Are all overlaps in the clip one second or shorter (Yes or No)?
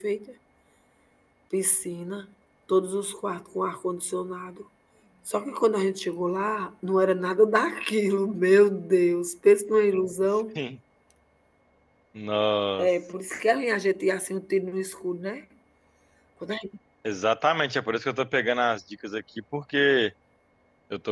Yes